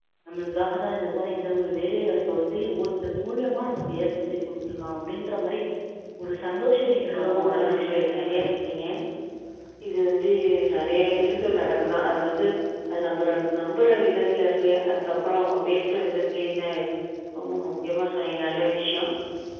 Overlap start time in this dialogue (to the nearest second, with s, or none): 7 s